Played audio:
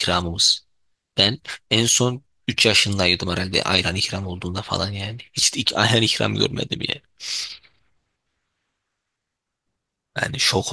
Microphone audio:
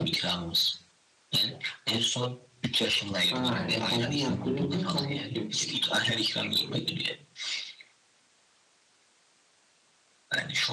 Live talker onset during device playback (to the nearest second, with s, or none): 3 s